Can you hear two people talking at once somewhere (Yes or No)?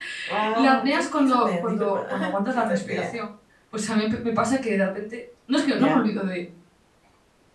Yes